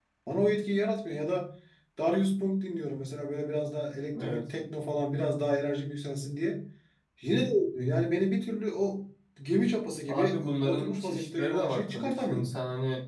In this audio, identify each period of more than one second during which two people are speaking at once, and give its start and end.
10.1-12.5

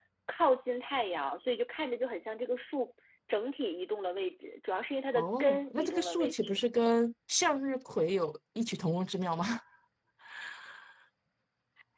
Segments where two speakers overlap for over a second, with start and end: 5.1-6.6

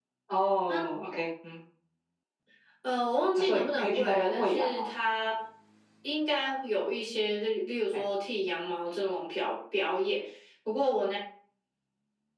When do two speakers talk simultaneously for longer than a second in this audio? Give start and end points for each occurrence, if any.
3.4-4.9

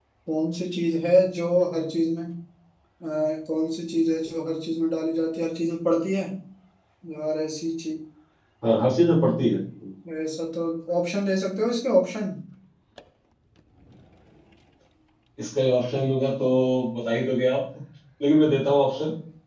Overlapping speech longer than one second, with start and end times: none

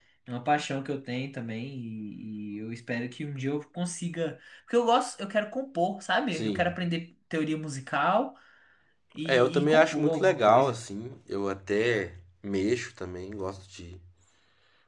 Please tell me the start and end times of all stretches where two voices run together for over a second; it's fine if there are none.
9.2-10.8

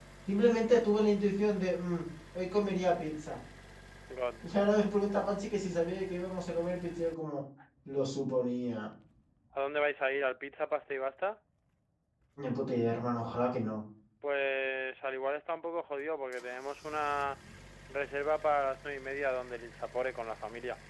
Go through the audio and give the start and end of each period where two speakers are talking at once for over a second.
none

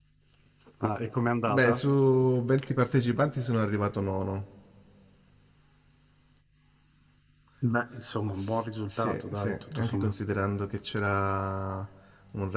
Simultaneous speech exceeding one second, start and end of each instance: 8.4-10.1

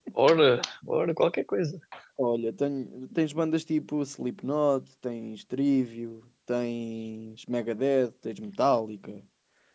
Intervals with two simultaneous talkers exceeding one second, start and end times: none

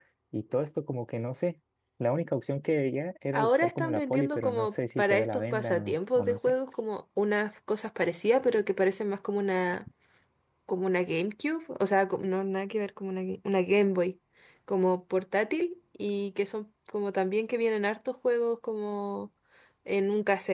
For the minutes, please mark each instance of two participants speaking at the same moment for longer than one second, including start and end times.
3.3-6.4

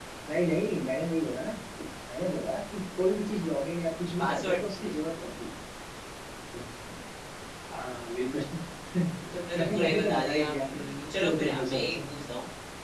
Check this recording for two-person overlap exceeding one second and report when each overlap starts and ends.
9.5-12.0

